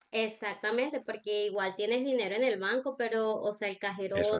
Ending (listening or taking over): listening